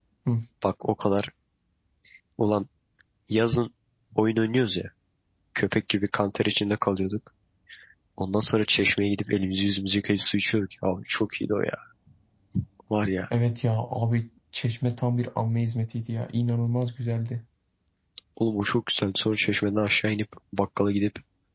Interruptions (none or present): none